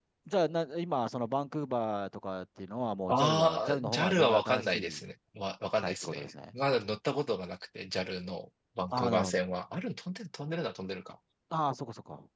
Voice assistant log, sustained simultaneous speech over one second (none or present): present